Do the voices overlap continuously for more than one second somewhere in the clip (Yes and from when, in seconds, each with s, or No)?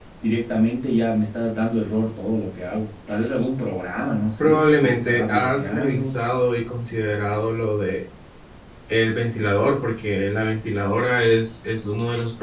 Yes, from 4.4 s